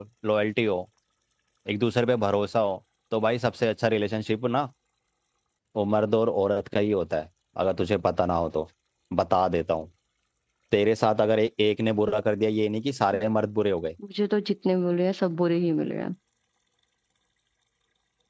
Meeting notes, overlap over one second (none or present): none